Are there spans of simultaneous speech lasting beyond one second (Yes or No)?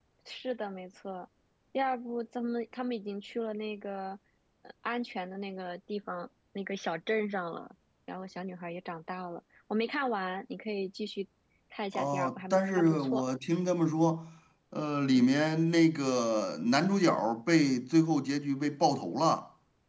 Yes